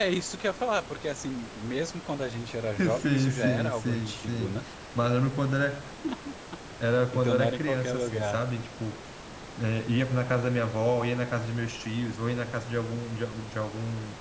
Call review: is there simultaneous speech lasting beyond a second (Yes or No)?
Yes